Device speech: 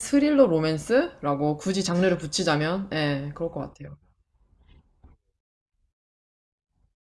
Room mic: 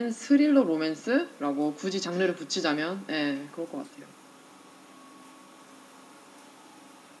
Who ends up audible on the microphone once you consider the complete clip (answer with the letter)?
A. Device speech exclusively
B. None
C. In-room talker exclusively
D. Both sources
A